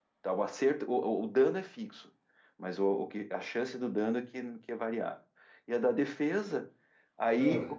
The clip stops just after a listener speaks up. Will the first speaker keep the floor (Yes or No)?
Yes